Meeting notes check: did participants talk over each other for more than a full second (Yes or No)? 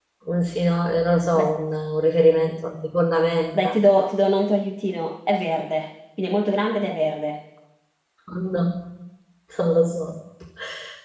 No